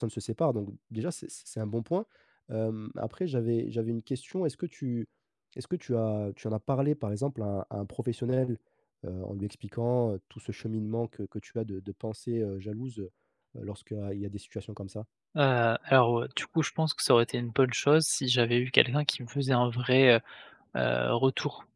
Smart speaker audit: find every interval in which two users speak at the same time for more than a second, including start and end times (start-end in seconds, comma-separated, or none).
none